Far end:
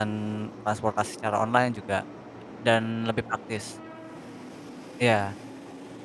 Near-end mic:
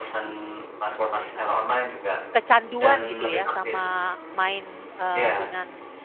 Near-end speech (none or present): present